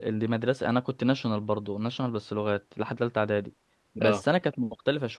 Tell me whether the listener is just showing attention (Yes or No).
Yes